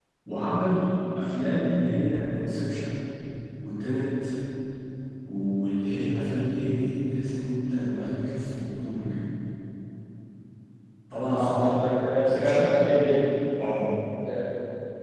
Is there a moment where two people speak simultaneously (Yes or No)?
Yes